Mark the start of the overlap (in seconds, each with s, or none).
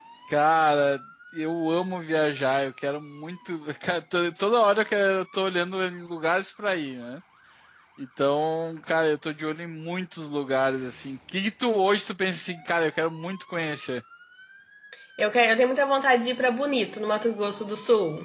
none